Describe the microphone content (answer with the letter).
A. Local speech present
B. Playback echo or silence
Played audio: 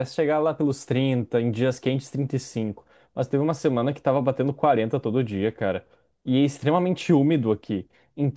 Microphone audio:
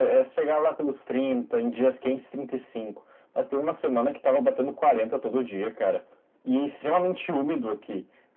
B